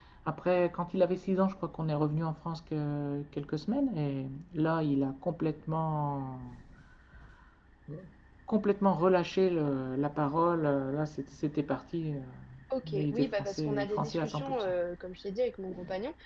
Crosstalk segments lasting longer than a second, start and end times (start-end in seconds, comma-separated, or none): 12.9-14.7